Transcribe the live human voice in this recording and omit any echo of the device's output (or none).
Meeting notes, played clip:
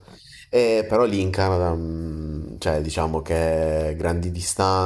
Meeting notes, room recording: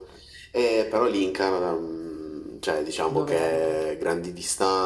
Dove abita?